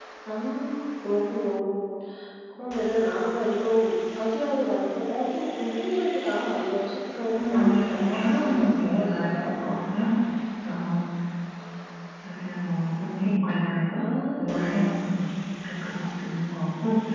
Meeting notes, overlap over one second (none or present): present